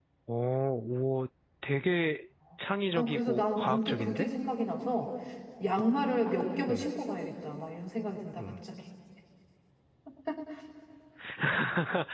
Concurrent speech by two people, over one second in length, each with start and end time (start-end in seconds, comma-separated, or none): 3.0-4.3